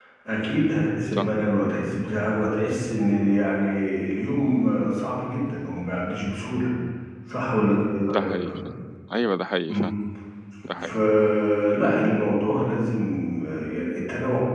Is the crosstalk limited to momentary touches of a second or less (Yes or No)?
Yes